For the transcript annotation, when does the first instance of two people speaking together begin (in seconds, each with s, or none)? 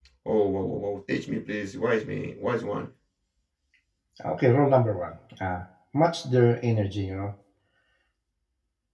none